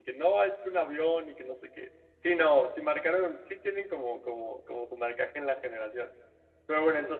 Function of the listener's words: listening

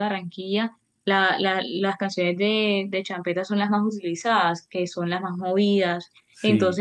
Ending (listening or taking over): listening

